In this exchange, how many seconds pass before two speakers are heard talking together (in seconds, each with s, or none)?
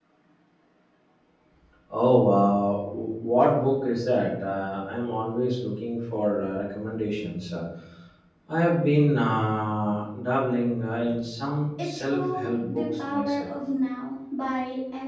11.8 s